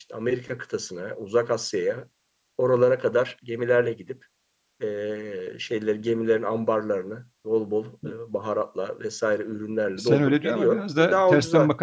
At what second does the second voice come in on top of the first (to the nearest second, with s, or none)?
10 s